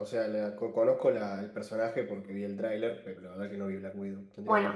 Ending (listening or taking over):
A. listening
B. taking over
B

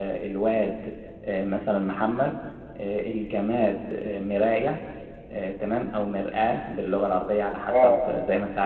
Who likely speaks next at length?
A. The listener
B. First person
B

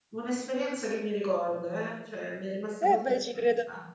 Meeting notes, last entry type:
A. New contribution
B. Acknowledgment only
A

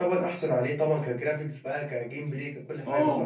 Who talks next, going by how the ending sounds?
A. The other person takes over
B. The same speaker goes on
A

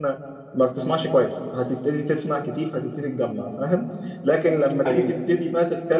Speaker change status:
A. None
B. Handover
A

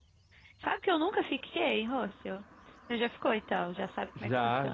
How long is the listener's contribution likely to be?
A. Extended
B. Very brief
A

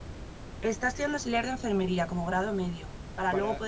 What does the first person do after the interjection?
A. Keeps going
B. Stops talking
A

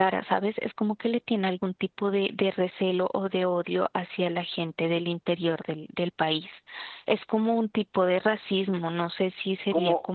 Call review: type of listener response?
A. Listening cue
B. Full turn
B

